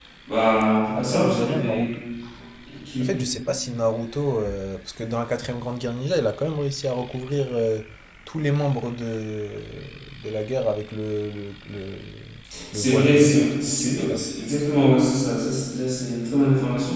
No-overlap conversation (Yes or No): No